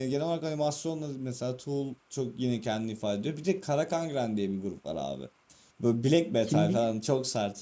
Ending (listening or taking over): listening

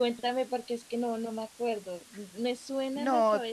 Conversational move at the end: taking over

